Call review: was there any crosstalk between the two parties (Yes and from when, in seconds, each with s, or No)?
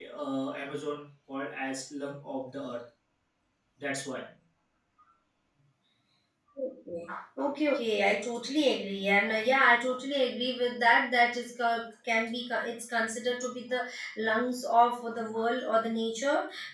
No